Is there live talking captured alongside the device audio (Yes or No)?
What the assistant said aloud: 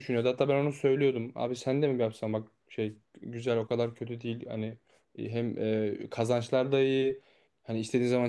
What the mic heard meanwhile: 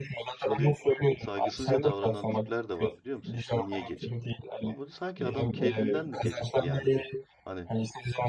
Yes